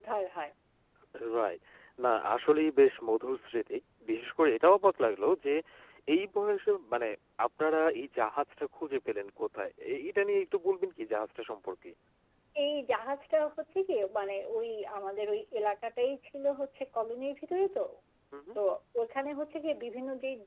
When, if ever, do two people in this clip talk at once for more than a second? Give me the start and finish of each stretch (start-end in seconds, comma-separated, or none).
none